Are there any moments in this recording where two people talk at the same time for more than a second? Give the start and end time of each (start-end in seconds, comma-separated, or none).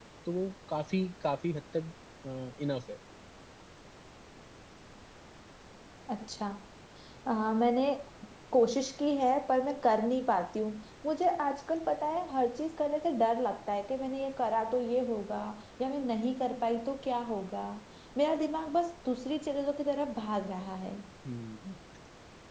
none